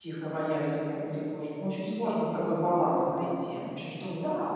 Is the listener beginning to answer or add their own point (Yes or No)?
Yes